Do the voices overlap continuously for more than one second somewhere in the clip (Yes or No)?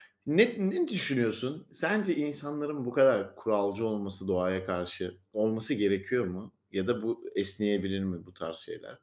No